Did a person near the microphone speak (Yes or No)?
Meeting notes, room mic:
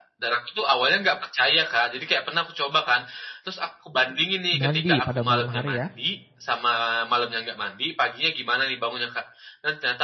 Yes